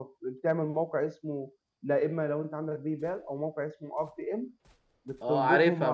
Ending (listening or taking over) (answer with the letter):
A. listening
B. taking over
B